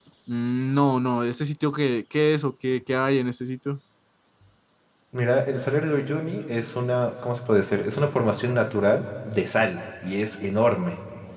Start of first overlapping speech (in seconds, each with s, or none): none